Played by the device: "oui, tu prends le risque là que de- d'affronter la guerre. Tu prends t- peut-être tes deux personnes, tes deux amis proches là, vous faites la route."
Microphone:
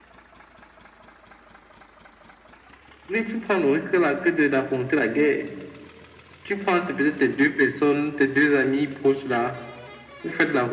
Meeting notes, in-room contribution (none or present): none